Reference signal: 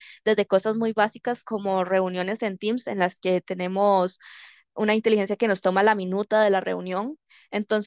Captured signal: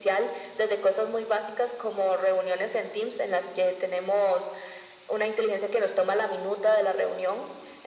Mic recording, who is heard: echo only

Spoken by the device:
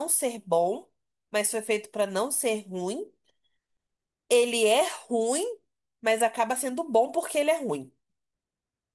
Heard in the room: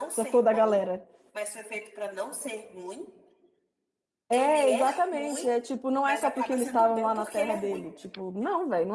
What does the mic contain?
both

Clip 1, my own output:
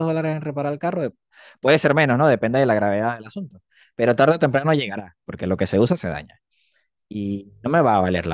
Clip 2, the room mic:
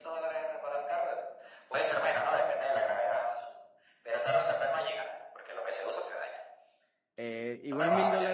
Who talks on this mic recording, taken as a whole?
both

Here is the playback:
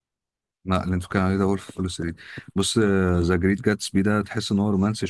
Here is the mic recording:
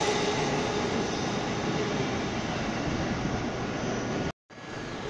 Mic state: neither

